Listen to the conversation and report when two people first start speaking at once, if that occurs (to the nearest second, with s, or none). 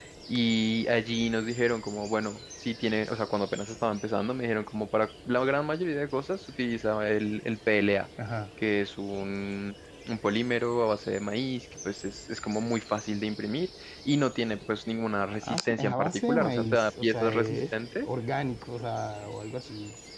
15 s